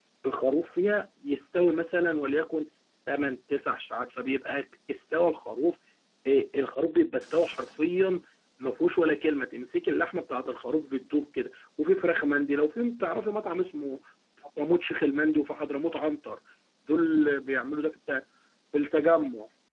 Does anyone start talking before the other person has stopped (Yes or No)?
No